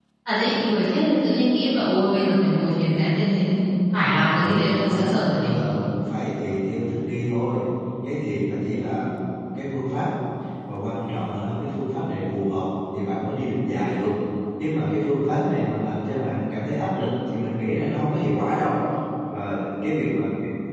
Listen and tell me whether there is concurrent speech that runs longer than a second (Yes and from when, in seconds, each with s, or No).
Yes, from 4.3 s